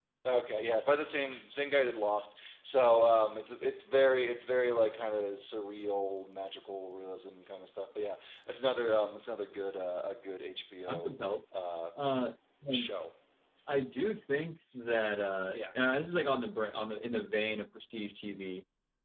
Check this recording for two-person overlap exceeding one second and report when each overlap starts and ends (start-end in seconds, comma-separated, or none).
none